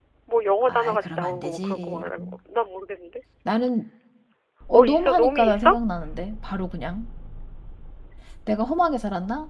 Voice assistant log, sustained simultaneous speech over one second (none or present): present